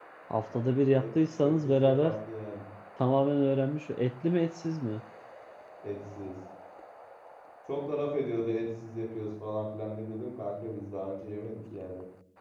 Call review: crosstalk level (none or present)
present